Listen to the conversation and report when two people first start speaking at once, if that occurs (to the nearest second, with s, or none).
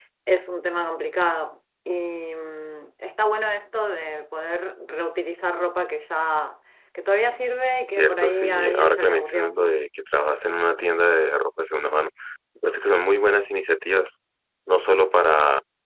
8 s